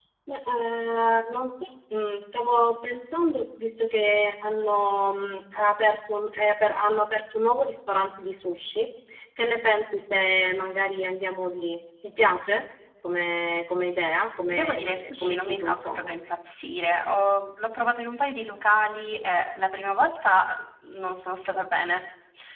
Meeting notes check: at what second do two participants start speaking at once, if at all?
14.5 s

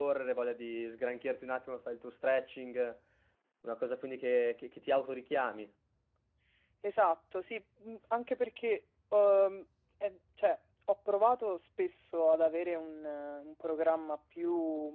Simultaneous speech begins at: none

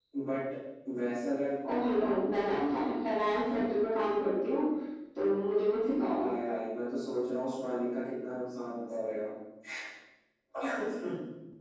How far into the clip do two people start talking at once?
none

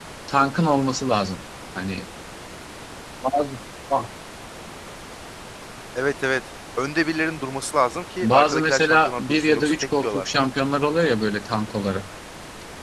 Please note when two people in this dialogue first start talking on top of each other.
8.2 s

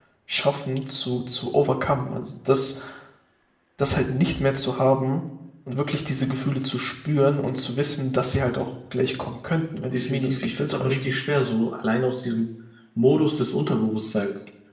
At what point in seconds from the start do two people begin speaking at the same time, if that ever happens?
9.9 s

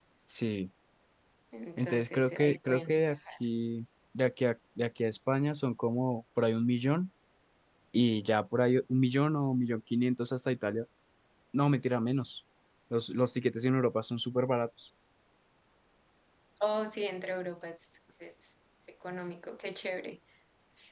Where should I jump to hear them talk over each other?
1.8 s

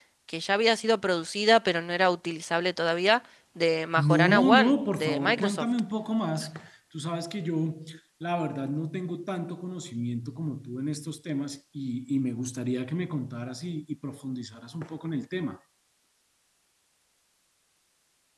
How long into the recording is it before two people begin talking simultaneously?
4.0 s

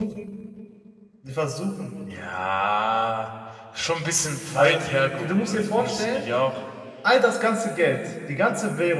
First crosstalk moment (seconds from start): 4.6 s

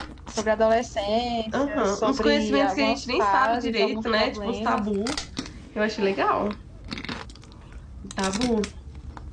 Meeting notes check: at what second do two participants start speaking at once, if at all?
1.7 s

